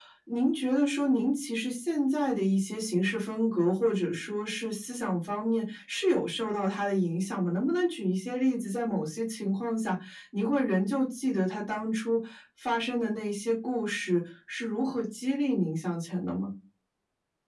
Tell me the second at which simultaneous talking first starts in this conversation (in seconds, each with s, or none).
none